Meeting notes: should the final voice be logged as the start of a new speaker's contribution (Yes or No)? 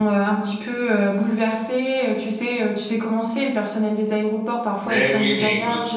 Yes